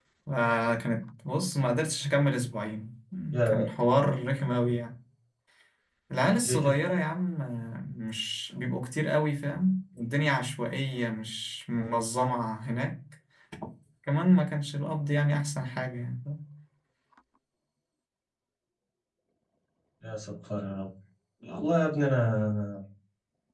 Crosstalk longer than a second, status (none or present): none